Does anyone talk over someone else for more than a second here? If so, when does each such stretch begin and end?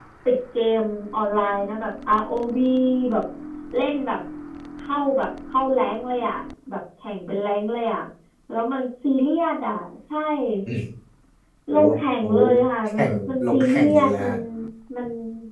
12.8-14.3

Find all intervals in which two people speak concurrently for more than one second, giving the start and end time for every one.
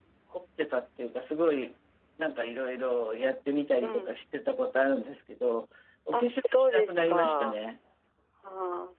6.1-7.6

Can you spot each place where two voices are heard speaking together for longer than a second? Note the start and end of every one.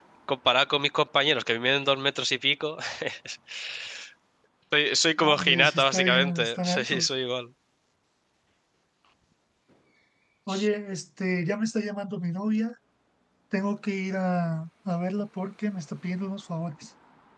5.2-7.1

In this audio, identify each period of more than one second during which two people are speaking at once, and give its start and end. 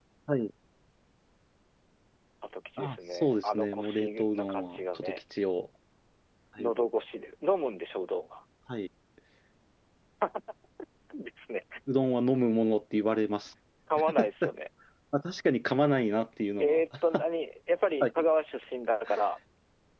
2.8-5.2

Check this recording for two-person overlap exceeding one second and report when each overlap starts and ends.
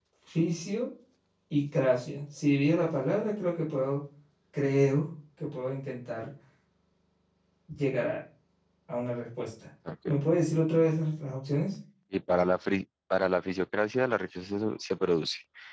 none

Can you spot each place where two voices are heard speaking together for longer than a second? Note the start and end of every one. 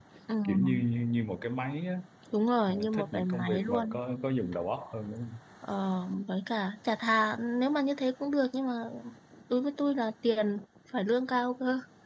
2.7-4.0

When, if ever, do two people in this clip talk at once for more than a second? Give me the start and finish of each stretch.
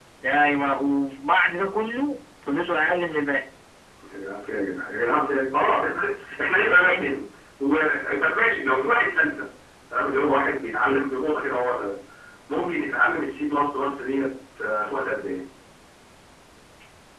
none

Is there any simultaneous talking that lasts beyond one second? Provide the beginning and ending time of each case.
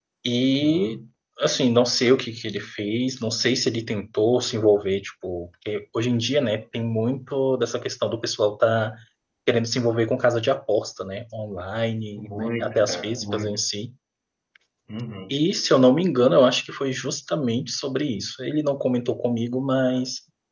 12.2-13.6

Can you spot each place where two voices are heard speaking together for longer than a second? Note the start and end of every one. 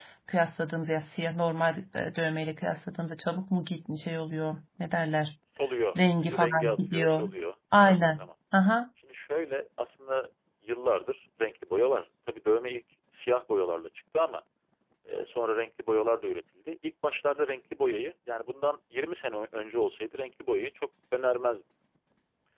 6.0-7.3

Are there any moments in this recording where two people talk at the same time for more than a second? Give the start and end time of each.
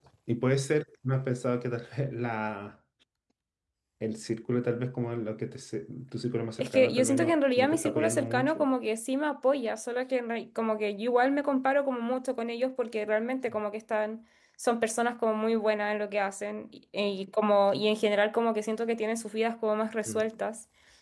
6.6-8.7

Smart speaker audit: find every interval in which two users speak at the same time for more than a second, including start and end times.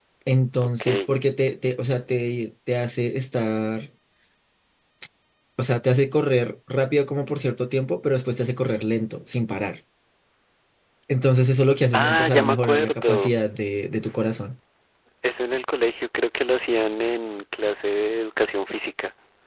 11.9-13.3

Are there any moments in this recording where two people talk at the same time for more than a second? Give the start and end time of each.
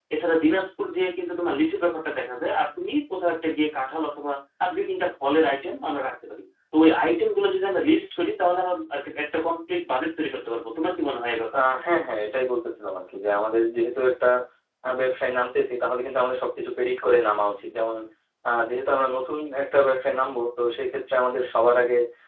none

